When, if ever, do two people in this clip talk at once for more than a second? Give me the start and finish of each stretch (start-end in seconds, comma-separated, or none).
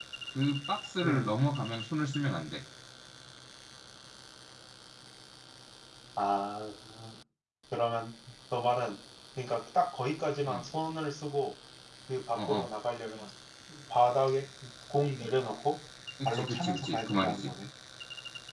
16.2-17.5